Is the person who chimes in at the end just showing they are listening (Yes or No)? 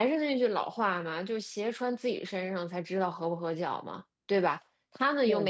Yes